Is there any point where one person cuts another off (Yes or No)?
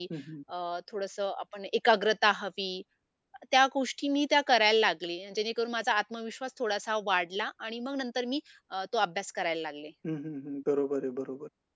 No